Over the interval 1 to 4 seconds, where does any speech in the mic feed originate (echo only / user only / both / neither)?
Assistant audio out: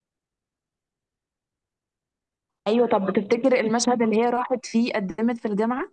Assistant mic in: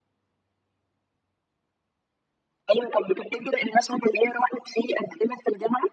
echo only